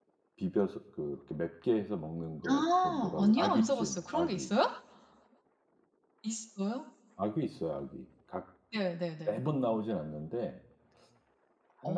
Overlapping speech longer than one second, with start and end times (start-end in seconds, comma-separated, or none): 2.5-4.5